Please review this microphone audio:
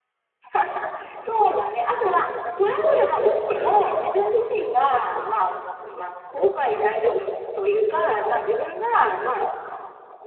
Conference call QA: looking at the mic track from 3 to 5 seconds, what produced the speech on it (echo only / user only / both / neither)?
both